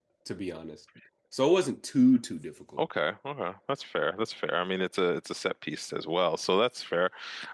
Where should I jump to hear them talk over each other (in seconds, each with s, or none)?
none